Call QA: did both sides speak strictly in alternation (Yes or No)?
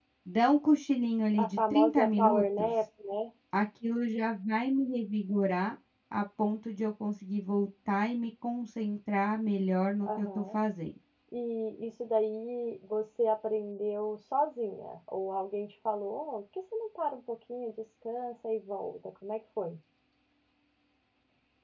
No